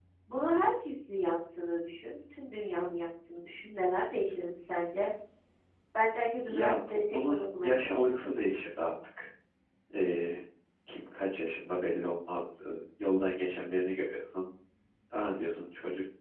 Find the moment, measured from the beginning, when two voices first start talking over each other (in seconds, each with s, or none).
6.5 s